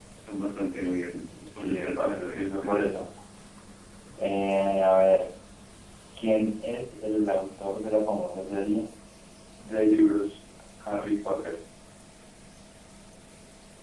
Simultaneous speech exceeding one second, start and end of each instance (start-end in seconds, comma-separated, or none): 1.6-2.8